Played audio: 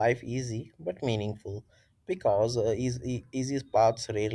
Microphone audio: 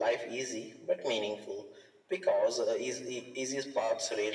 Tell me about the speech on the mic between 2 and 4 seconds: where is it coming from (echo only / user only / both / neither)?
echo only